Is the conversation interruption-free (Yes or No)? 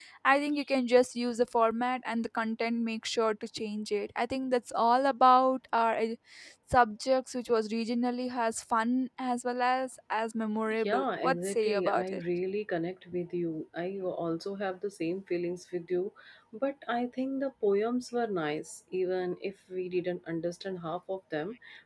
No